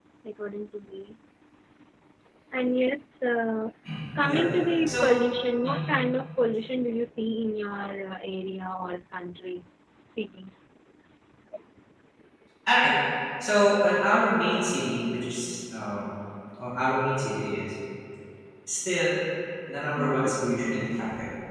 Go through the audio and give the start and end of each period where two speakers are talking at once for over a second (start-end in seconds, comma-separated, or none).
none